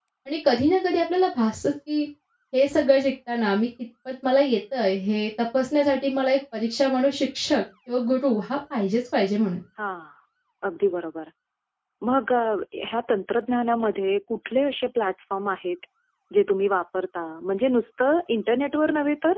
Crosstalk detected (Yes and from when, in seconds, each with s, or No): No